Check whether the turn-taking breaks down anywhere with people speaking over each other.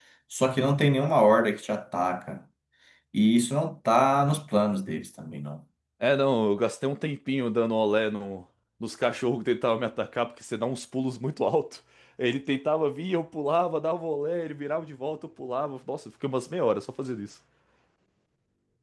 No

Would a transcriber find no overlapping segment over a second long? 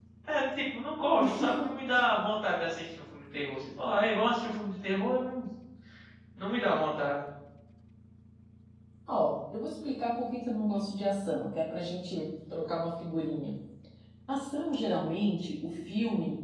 Yes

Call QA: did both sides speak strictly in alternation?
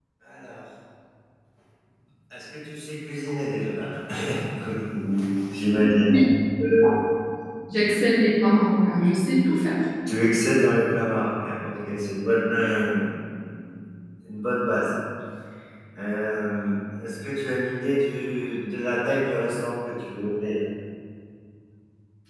Yes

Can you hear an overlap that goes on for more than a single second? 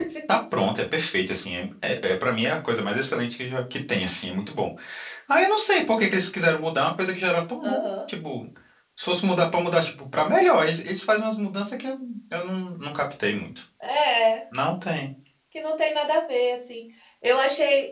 No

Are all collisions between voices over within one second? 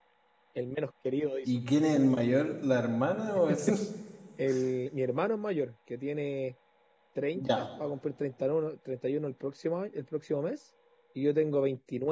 Yes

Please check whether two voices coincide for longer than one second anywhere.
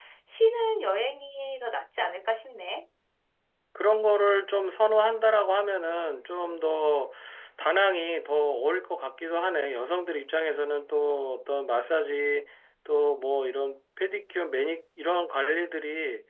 No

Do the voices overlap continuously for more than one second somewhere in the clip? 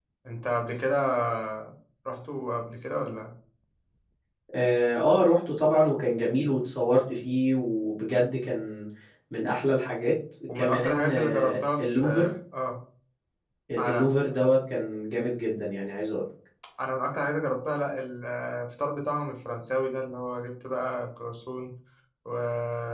Yes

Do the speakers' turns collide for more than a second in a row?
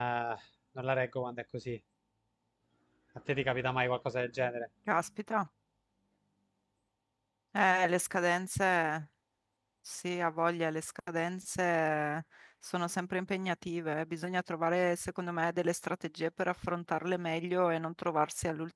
No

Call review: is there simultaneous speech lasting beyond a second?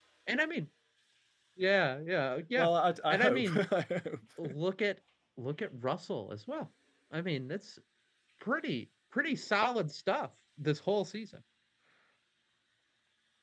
No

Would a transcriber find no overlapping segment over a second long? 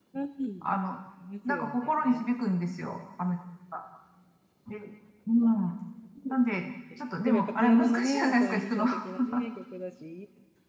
No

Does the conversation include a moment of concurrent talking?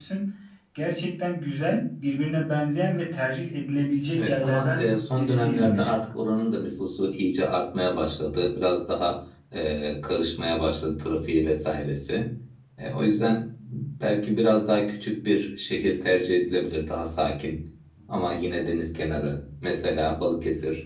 Yes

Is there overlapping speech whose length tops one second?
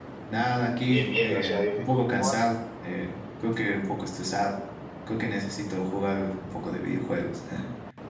Yes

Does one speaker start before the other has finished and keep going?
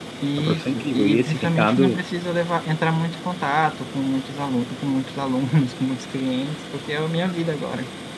Yes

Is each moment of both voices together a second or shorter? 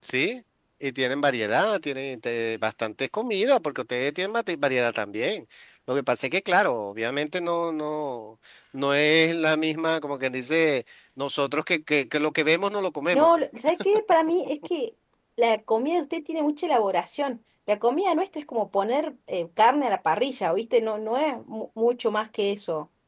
Yes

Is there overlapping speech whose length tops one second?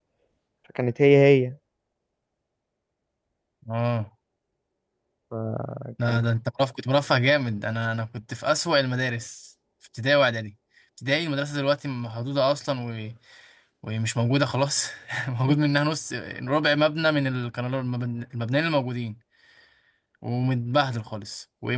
No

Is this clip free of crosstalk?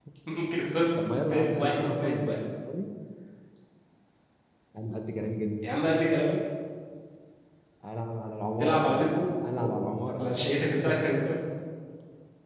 No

